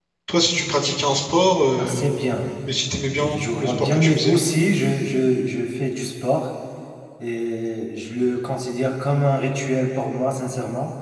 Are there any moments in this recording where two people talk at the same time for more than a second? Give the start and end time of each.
3.1-4.4

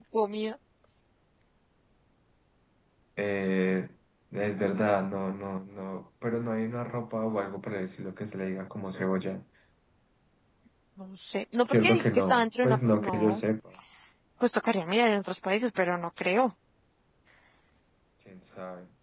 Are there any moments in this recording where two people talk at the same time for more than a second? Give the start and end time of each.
11.7-13.4

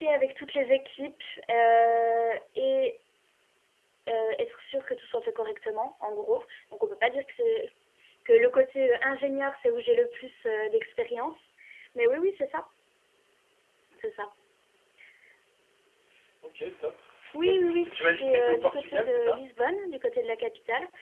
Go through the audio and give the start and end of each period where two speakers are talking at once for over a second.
17.4-19.4

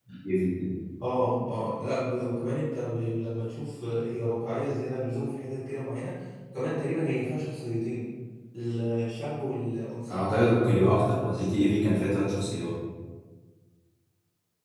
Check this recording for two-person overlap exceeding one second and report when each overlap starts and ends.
none

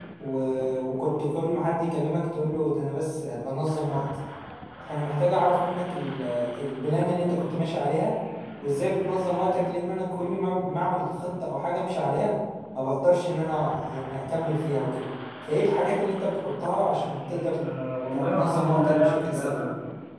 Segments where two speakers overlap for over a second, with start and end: 18.1-19.6

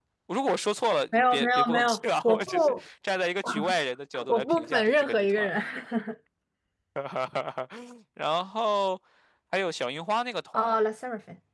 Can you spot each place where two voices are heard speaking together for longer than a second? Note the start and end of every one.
1.1-2.7, 4.3-5.5

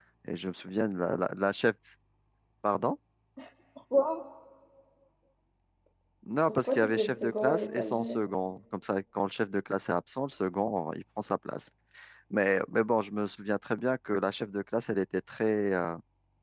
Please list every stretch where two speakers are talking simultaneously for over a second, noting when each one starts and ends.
6.5-8.2

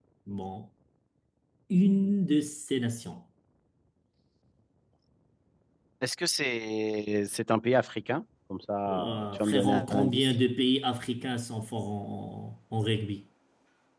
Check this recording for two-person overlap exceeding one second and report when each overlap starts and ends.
8.9-10.3

